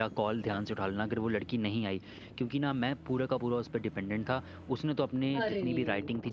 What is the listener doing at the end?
listening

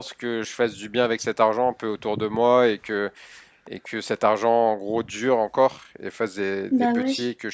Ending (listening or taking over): listening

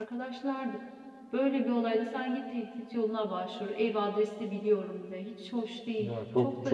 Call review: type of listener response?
taking over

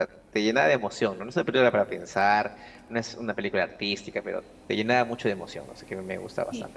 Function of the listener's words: taking over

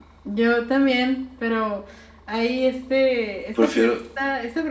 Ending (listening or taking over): listening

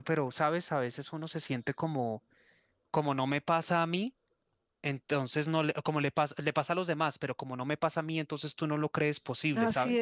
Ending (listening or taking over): taking over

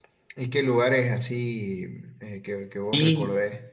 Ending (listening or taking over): taking over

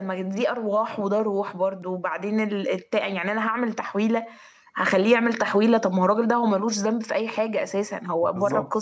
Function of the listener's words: taking over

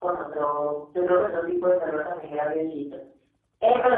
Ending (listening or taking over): listening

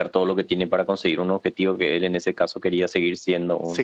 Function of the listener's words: taking over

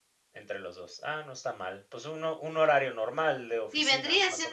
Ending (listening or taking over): taking over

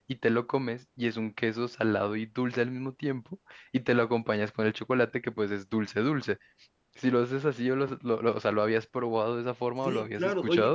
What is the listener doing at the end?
taking over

